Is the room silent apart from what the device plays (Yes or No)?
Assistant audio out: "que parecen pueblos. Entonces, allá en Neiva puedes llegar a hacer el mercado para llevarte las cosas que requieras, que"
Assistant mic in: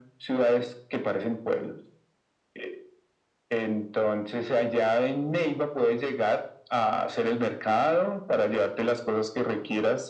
Yes